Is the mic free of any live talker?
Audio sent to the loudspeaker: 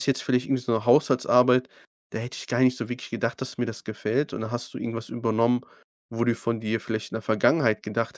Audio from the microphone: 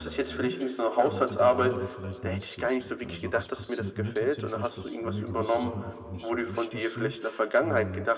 No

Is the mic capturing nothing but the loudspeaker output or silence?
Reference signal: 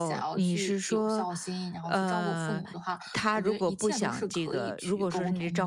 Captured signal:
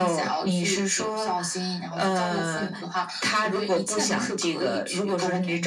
Yes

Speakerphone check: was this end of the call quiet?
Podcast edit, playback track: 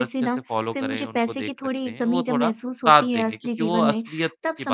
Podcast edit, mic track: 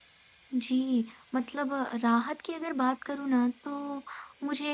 No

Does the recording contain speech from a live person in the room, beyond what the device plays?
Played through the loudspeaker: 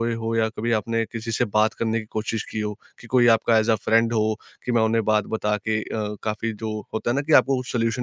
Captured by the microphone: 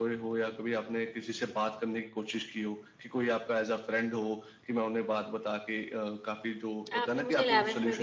Yes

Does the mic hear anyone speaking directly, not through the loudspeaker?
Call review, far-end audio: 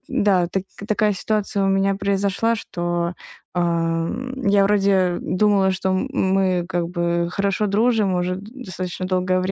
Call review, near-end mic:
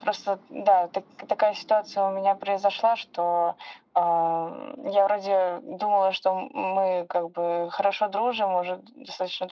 No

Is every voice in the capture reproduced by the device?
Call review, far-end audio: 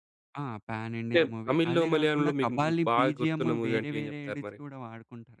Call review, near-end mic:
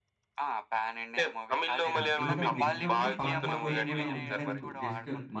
No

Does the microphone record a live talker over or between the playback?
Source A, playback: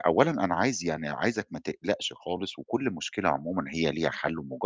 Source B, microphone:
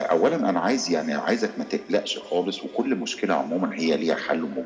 No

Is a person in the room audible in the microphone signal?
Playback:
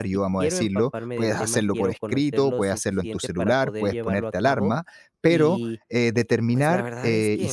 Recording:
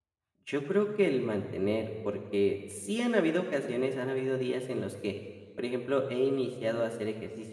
Yes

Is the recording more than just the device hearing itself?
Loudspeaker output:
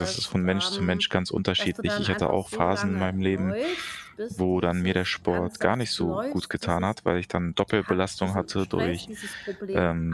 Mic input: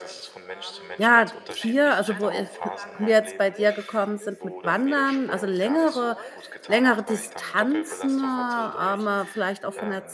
Yes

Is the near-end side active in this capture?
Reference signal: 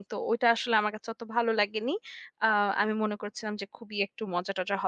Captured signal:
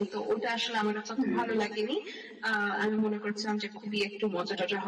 Yes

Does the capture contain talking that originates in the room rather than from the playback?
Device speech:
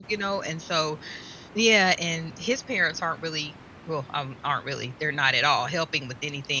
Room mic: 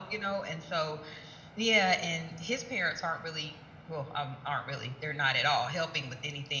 No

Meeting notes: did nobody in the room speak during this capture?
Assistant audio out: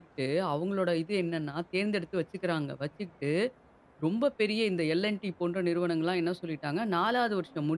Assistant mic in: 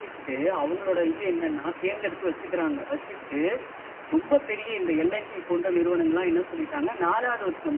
Yes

